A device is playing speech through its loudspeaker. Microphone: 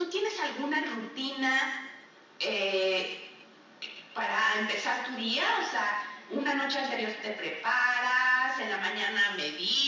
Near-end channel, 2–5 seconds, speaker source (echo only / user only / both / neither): echo only